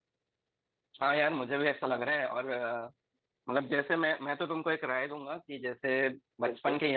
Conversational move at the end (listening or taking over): listening